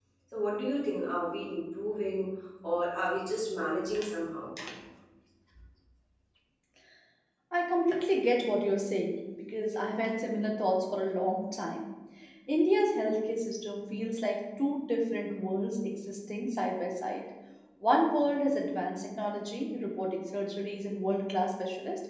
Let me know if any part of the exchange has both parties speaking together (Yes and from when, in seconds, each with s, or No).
No